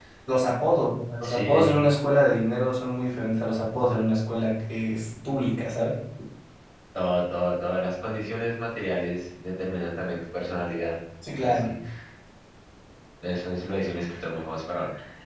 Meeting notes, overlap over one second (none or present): none